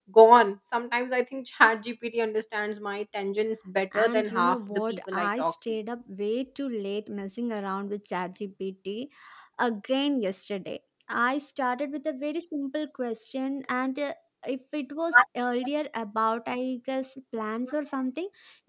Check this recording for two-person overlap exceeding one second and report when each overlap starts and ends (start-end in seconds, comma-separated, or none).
4.0-5.5